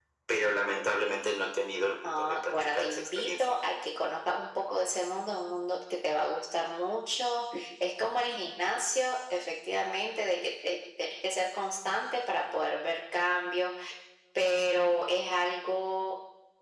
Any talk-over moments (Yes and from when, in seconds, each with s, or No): Yes, from 2.0 s